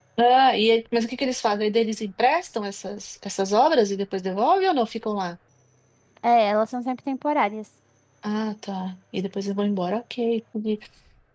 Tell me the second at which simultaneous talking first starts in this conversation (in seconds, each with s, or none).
none